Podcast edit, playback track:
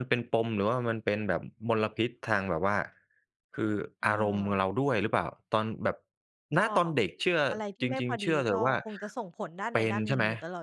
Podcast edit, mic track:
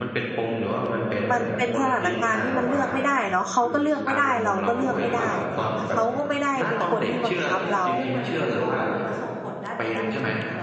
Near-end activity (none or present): present